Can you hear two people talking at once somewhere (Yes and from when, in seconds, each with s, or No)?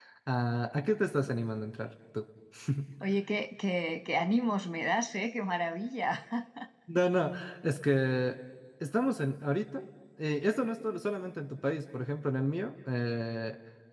No